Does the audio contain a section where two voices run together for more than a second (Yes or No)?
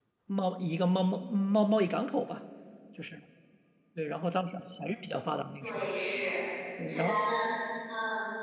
No